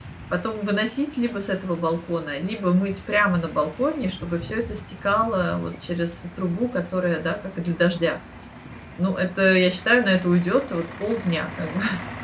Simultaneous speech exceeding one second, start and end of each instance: none

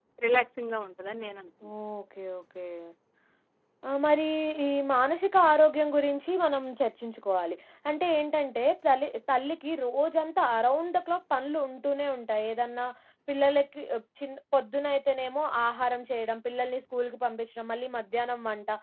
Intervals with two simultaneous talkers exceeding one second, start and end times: none

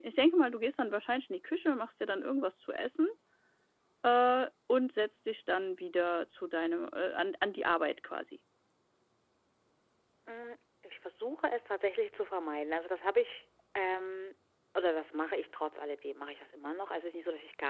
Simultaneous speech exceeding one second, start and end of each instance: none

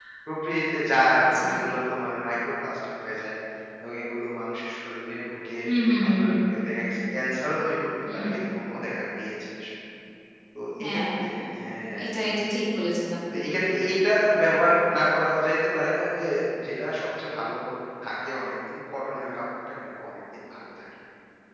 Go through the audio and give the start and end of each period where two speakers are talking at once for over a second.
none

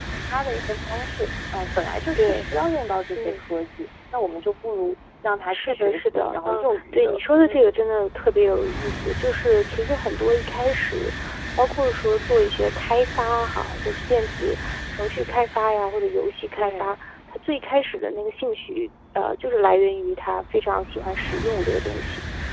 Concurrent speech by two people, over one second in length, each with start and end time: 5.5-7.7

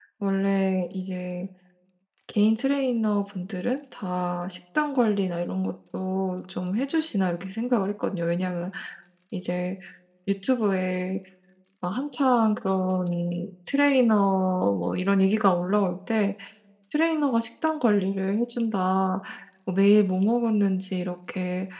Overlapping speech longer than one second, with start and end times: none

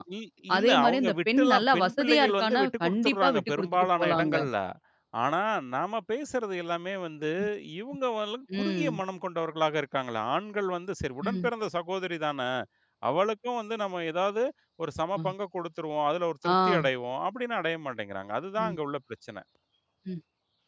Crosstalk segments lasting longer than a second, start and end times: 0.6-4.3

